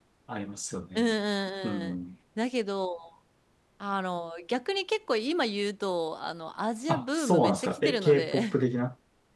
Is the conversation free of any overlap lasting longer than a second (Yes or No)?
No